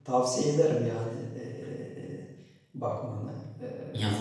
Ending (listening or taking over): taking over